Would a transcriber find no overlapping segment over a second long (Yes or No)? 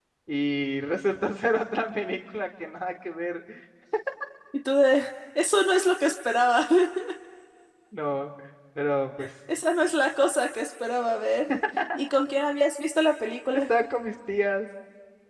Yes